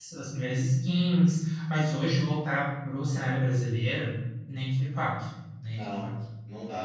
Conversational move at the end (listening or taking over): taking over